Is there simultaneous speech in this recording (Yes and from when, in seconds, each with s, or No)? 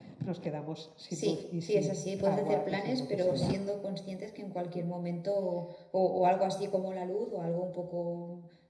Yes, from 1.1 s